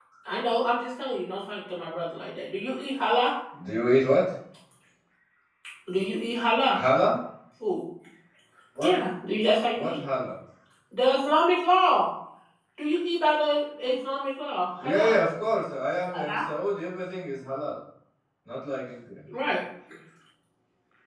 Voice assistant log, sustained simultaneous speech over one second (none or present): none